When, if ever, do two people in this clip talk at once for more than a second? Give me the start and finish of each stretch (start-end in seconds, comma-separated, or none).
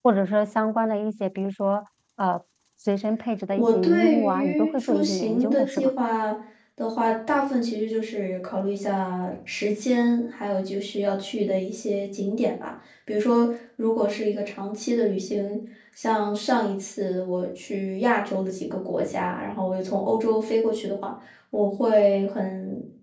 3.5-5.9